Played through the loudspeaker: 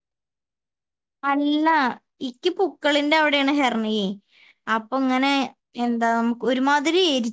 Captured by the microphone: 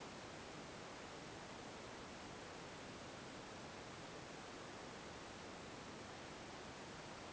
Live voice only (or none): none